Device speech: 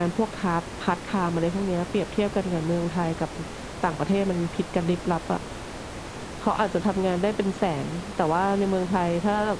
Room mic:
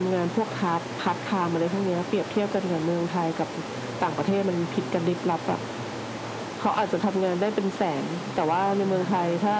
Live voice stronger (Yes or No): No